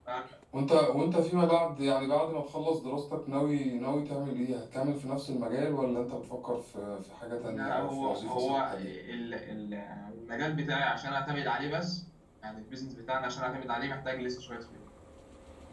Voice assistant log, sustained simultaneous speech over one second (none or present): present